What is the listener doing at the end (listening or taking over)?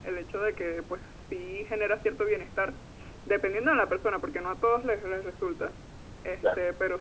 listening